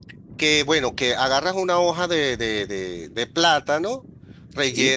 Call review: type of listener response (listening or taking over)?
listening